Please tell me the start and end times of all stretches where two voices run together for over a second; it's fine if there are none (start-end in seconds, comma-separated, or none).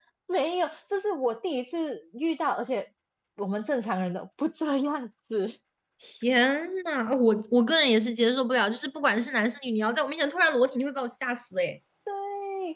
none